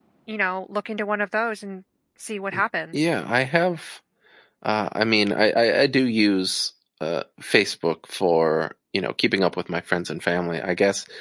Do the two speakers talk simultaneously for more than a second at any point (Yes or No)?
No